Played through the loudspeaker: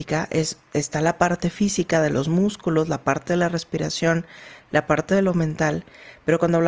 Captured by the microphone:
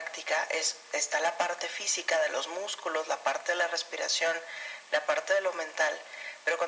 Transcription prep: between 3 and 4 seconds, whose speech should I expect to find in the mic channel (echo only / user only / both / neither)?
echo only